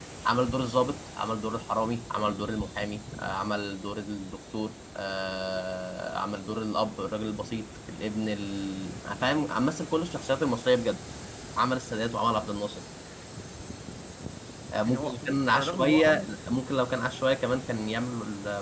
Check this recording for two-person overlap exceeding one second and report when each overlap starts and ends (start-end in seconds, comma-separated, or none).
14.9-16.3